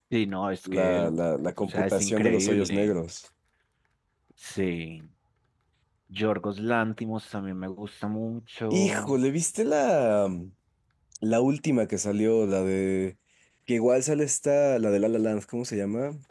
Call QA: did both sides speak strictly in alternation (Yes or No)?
No